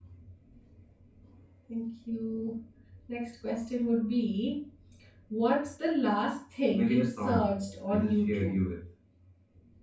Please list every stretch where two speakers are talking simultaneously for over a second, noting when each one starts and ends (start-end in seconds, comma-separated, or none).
6.7-8.6